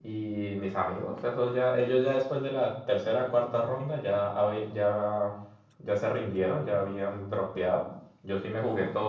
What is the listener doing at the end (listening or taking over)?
listening